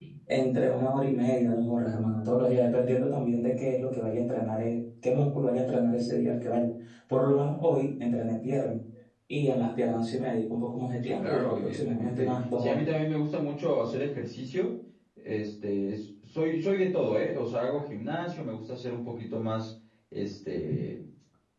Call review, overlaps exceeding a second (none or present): present